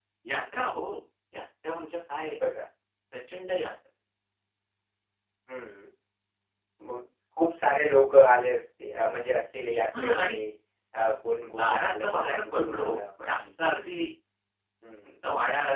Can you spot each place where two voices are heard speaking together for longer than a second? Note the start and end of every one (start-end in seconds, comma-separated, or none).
11.6-13.0